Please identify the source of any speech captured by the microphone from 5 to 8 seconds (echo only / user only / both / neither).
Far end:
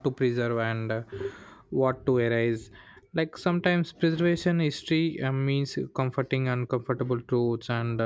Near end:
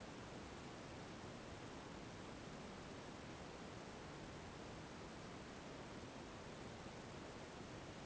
neither